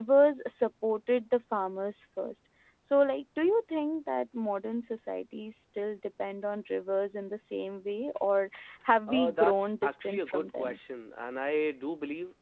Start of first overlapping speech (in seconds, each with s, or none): 9.1 s